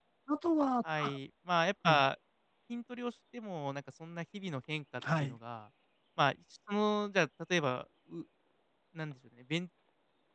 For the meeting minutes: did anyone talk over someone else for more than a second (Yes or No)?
No